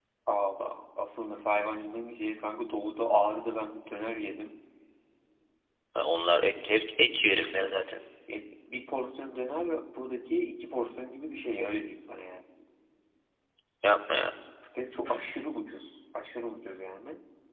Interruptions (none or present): none